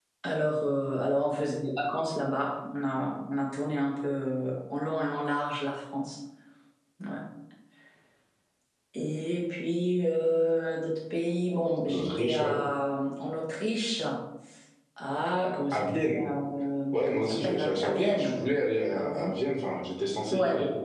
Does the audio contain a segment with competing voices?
Yes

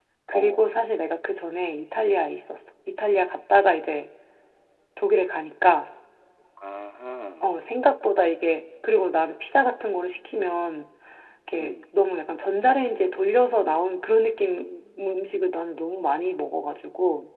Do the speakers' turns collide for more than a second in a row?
No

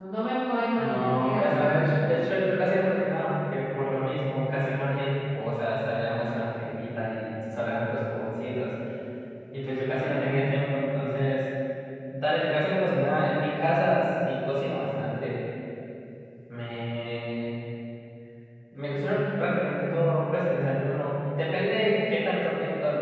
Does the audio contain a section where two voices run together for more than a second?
Yes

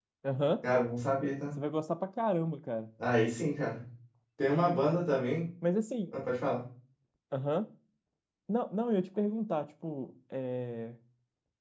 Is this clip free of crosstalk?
Yes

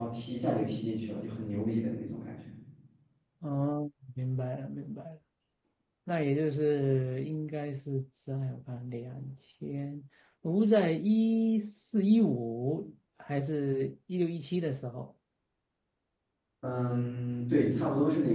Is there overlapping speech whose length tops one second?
No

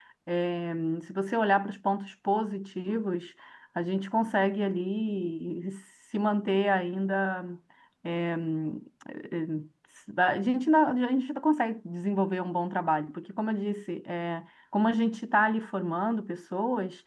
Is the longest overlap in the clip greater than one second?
No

